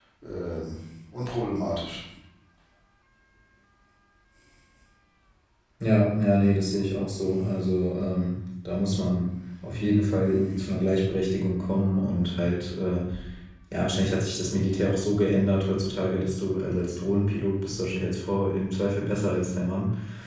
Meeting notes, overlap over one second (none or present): none